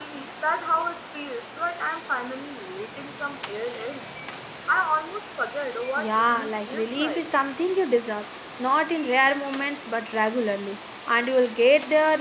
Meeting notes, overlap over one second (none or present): present